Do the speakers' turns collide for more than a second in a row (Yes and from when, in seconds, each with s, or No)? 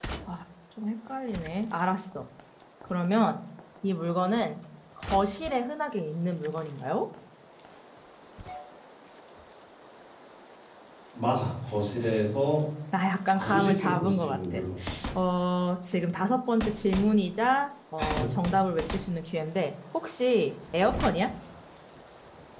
Yes, from 13.3 s